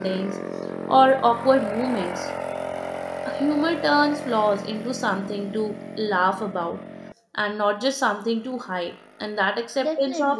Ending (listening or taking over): listening